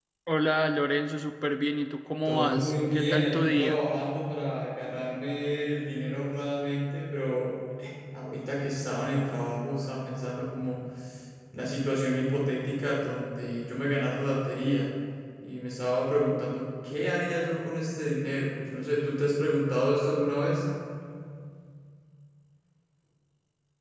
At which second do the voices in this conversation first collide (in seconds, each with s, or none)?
2.2 s